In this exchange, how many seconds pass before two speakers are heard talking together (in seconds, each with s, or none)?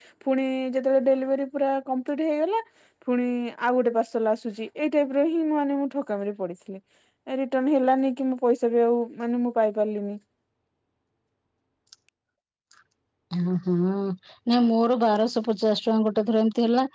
none